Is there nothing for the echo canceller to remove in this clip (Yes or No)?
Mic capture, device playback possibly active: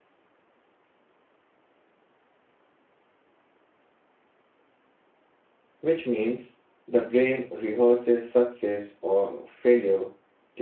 Yes